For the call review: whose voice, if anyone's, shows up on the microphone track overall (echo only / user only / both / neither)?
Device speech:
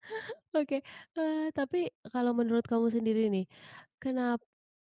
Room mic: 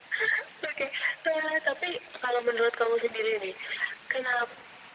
echo only